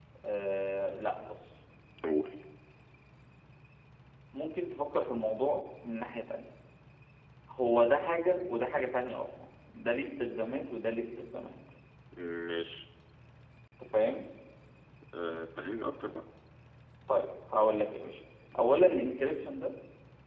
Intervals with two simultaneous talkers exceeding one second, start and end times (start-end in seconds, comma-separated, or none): none